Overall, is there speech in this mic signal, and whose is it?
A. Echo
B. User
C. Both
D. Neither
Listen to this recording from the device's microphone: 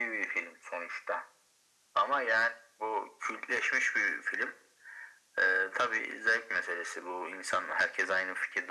A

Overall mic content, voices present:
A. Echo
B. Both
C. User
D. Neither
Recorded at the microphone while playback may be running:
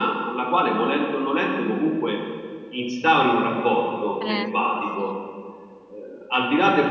B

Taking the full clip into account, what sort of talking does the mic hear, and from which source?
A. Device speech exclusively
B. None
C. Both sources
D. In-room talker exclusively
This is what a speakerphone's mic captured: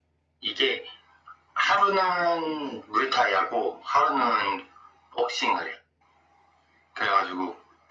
A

